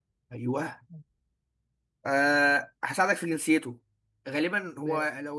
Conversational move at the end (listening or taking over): listening